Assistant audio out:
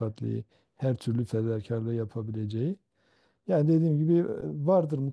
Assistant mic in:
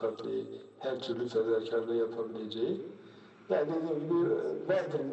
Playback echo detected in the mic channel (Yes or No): Yes